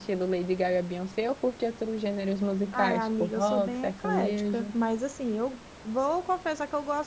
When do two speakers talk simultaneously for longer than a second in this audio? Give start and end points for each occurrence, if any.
2.7-4.7

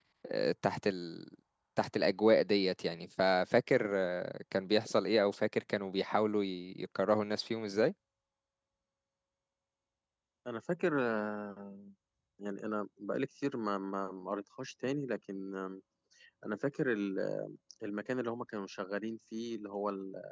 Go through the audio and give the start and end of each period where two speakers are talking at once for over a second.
none

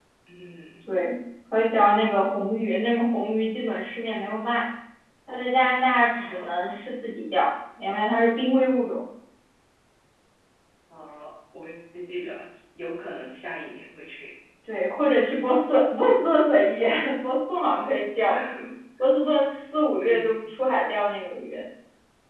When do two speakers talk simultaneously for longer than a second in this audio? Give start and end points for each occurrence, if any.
none

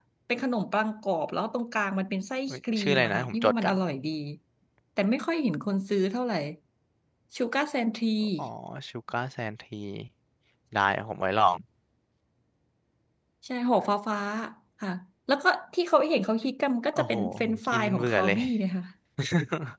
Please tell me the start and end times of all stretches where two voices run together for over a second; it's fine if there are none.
2.5-3.7, 16.9-18.4

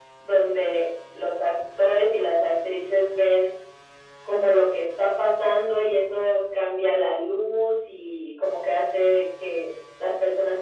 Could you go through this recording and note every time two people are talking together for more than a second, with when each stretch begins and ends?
none

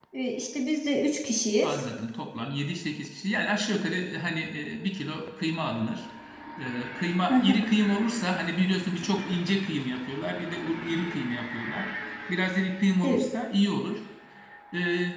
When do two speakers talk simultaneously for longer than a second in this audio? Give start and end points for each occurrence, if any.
none

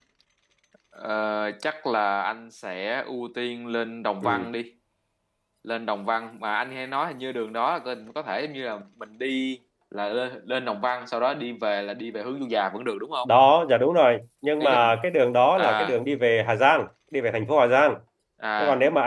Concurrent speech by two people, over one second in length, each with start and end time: none

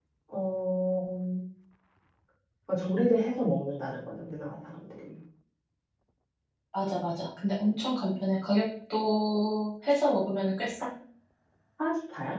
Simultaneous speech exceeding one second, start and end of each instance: none

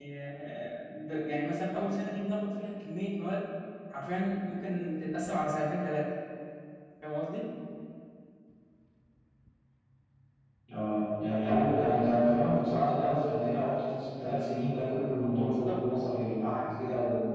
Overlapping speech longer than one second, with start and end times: none

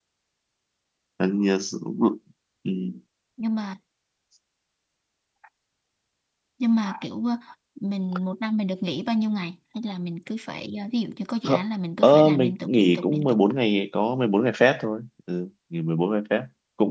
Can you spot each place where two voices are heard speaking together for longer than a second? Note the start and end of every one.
12.0-13.4

